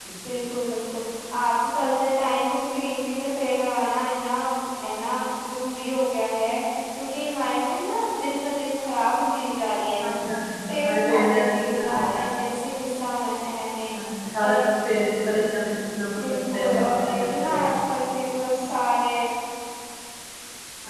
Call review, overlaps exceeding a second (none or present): present